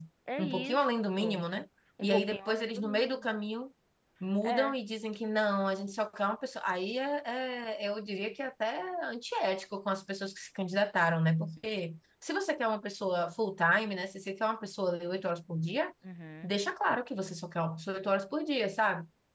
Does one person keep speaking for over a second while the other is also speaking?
Yes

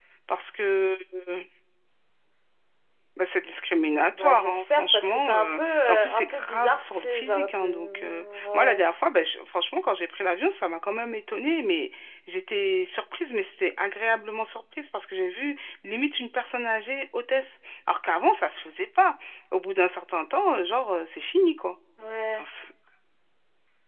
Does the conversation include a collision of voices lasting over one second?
Yes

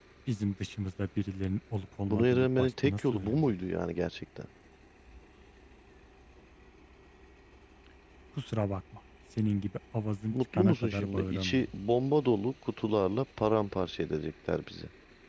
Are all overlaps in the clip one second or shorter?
No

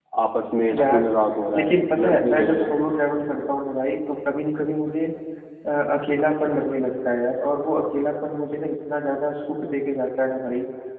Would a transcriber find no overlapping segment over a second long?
No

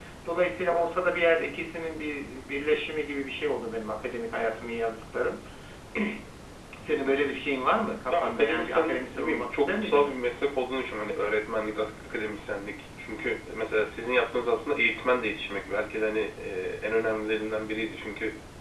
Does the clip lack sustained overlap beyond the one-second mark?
No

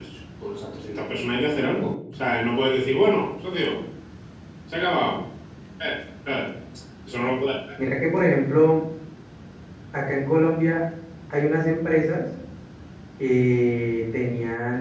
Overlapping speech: No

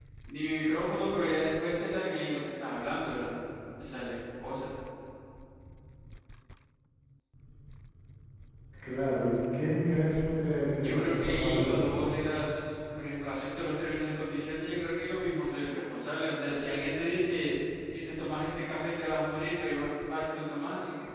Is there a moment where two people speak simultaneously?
Yes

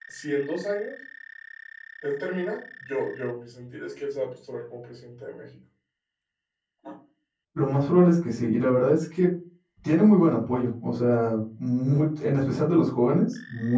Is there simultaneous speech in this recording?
No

